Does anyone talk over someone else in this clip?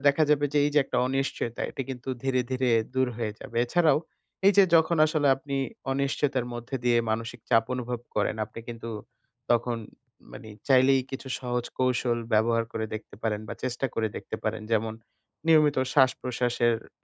No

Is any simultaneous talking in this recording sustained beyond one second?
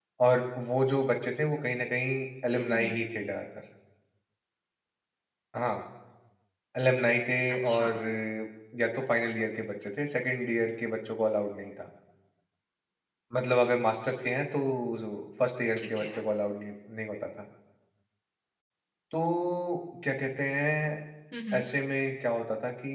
No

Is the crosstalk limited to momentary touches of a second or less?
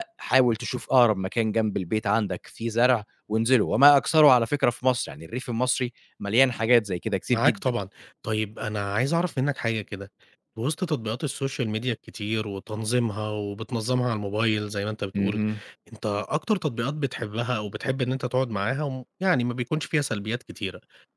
Yes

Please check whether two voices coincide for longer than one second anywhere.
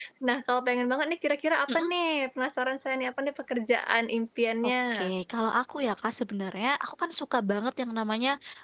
No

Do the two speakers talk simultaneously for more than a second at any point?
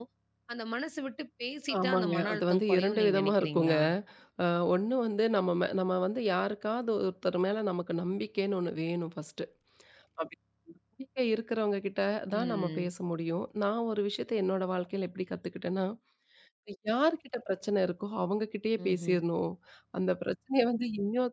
Yes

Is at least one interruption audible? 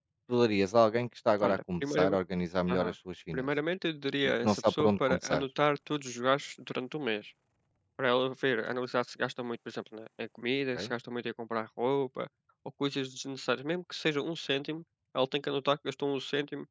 Yes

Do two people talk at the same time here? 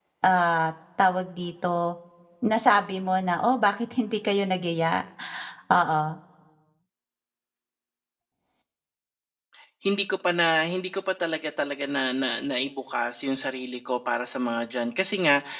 No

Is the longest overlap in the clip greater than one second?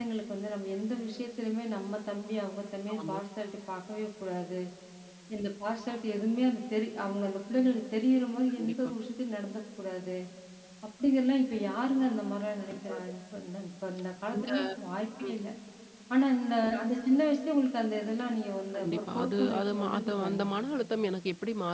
Yes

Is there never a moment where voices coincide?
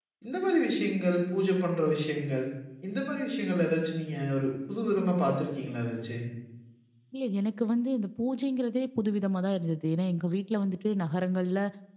Yes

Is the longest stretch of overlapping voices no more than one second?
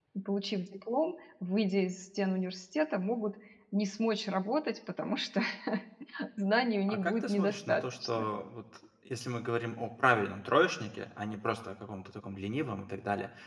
No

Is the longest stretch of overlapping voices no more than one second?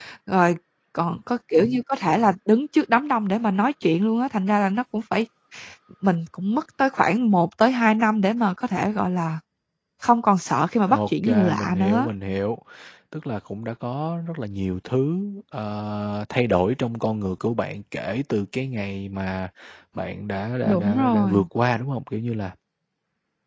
No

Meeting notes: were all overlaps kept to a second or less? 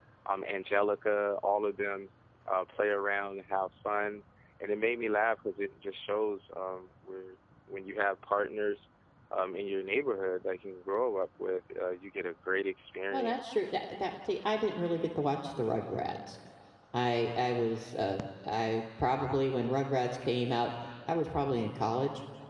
Yes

